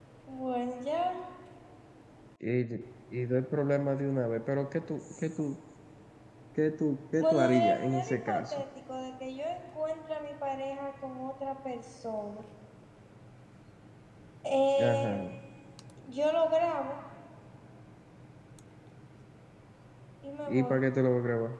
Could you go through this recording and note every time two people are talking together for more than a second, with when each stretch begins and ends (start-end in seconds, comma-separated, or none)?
7.2-8.6